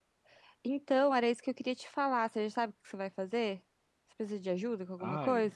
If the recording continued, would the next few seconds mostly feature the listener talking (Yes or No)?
Yes